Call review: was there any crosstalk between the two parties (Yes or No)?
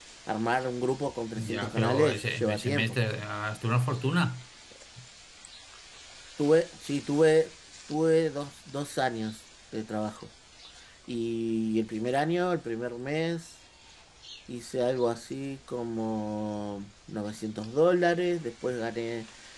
Yes